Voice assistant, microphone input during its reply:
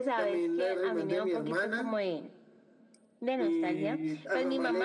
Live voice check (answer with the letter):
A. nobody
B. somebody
A